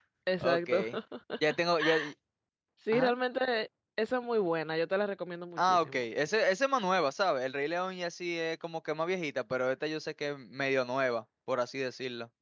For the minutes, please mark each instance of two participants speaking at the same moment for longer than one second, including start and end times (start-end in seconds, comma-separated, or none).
none